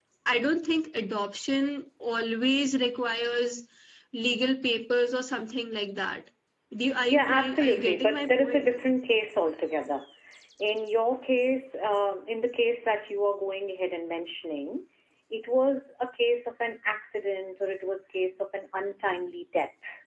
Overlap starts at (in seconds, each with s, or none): 7.1 s